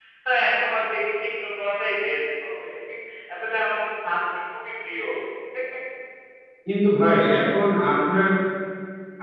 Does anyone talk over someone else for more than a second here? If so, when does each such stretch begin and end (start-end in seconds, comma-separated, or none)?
none